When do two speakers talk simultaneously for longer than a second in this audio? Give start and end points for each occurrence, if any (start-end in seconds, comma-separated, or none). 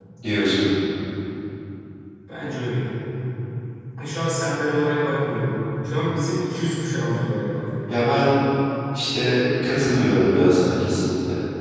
none